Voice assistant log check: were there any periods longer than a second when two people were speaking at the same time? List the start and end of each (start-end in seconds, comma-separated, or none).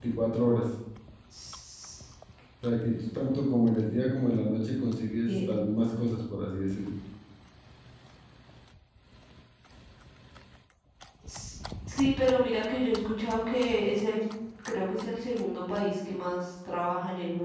none